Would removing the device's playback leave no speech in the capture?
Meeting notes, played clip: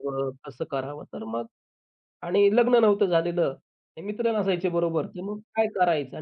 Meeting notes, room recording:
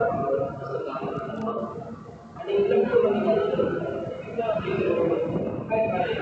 Yes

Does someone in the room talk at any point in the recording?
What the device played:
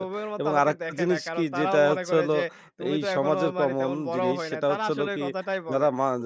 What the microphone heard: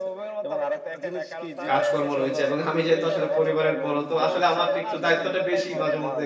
Yes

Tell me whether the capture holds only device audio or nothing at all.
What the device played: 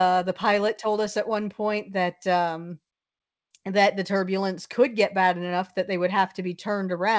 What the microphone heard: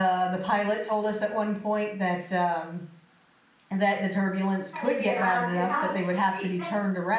No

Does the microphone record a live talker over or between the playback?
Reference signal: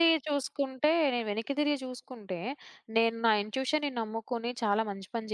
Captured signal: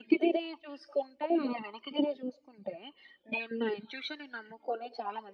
No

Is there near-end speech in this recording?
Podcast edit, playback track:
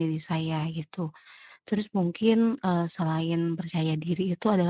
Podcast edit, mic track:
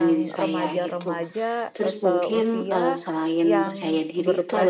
Yes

